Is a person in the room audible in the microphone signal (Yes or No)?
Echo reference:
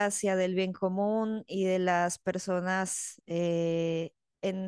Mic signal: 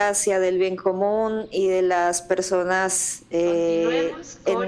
Yes